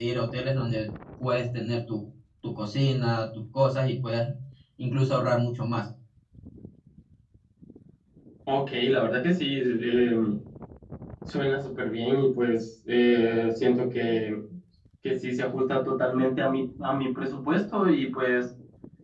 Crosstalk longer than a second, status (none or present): none